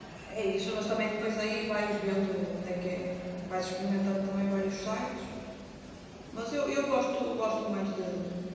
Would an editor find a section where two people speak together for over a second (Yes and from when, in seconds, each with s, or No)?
No